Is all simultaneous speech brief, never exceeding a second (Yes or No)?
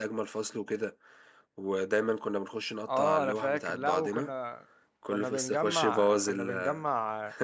No